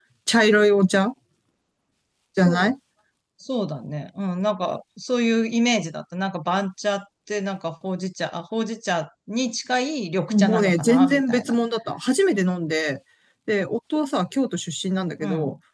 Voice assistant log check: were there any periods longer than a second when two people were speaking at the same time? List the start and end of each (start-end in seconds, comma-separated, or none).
10.3-11.5